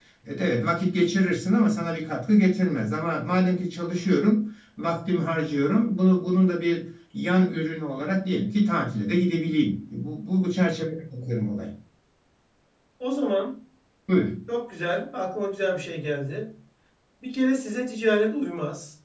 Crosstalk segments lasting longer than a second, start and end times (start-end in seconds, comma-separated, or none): none